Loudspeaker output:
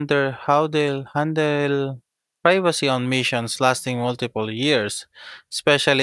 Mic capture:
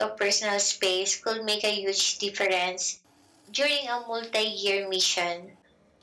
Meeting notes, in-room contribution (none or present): present